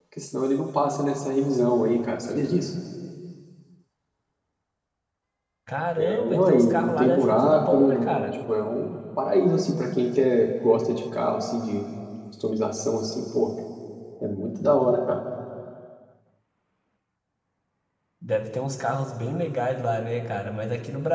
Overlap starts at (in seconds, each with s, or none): 6.0 s